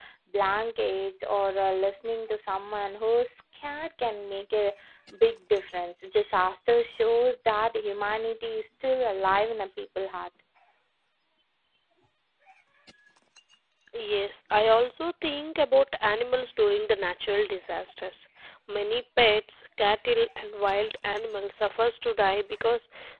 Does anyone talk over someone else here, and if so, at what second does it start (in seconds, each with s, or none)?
none